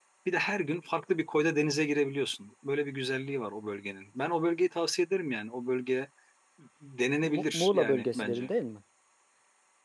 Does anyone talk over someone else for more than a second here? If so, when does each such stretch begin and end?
7.2-8.5

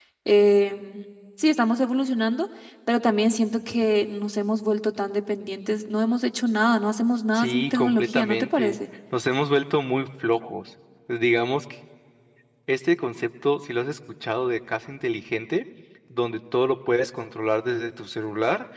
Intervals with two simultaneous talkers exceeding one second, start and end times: 7.3-8.8

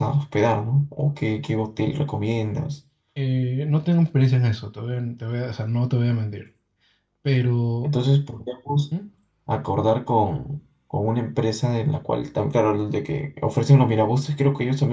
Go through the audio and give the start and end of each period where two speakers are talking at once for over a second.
none

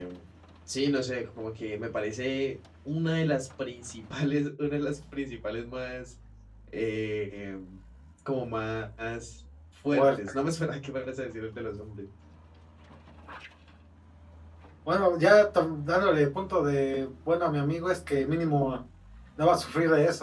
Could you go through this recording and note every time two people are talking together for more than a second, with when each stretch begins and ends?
none

